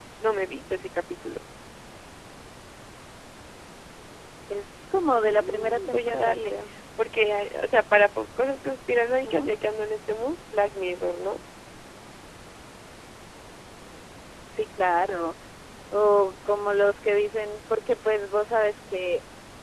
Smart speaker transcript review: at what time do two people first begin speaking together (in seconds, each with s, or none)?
5.2 s